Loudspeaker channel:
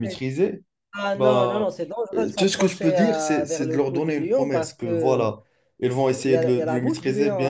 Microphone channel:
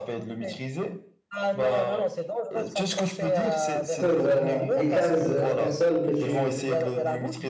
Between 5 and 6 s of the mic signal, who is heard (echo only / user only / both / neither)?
both